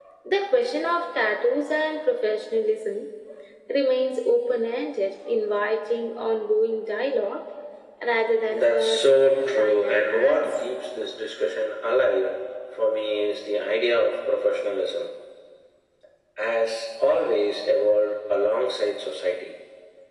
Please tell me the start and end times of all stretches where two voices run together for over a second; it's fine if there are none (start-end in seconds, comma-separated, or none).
8.5-10.6